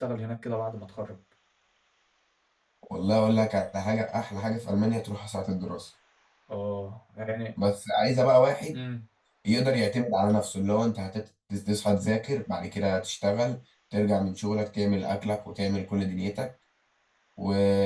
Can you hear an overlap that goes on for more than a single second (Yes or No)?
No